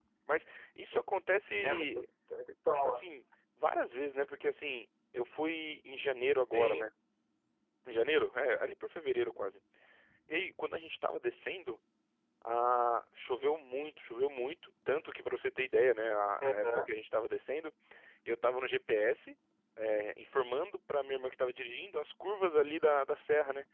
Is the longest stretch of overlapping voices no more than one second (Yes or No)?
Yes